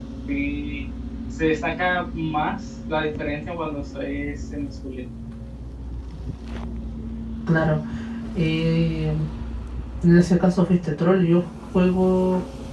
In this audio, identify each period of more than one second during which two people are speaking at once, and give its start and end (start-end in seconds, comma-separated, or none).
none